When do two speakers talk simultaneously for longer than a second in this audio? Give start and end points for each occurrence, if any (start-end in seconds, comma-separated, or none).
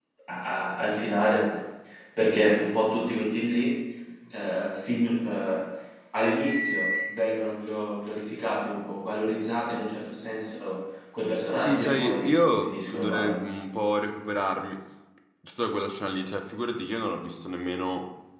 11.6-13.5